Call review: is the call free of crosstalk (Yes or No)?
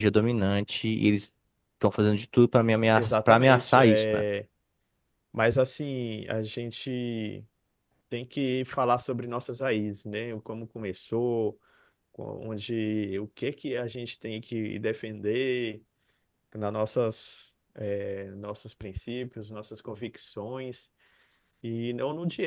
No